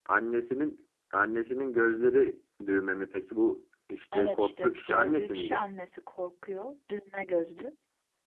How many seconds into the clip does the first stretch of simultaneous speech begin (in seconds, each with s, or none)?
4.1 s